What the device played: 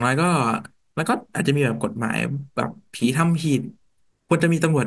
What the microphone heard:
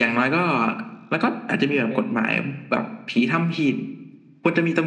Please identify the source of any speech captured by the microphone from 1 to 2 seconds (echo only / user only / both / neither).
both